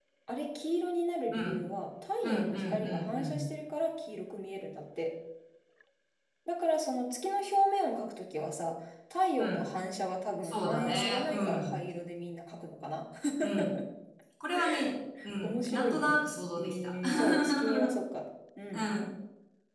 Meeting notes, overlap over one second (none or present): present